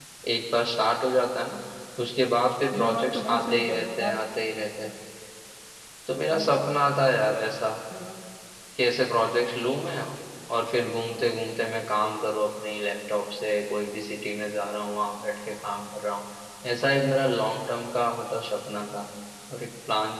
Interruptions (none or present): present